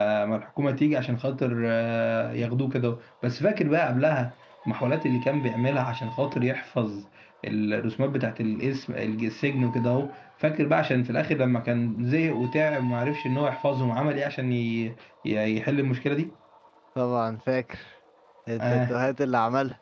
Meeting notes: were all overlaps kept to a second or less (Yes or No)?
Yes